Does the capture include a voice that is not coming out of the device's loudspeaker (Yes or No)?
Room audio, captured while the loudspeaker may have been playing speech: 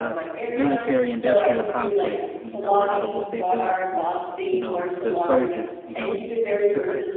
Yes